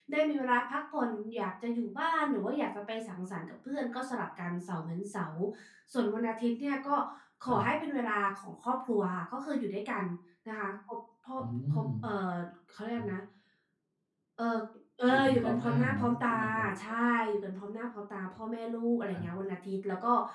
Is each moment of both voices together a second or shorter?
No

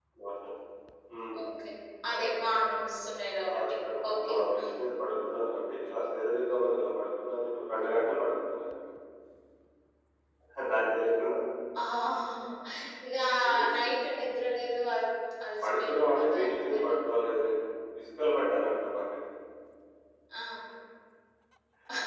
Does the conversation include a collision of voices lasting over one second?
Yes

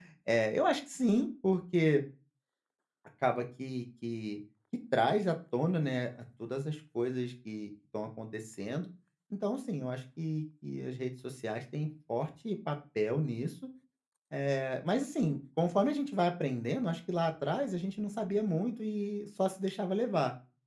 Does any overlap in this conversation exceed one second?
No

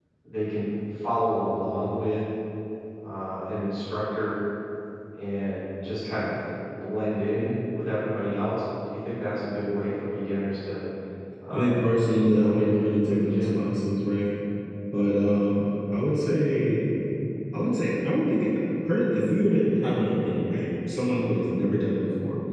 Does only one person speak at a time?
No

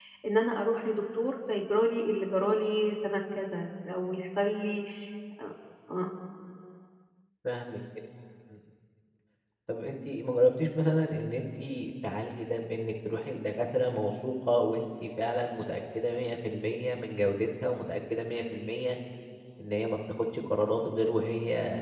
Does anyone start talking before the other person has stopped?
No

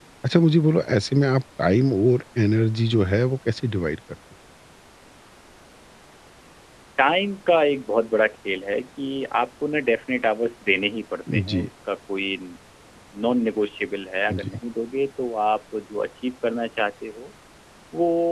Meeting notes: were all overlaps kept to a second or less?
Yes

